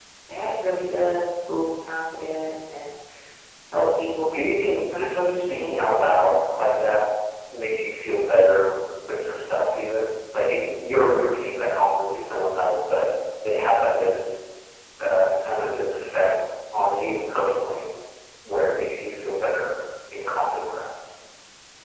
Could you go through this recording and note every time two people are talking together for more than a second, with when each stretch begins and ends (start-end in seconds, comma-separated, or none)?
4.9-6.3